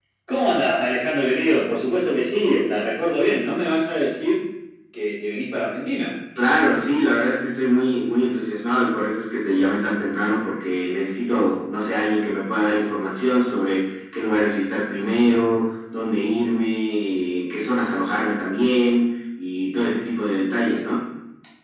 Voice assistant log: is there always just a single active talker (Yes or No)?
Yes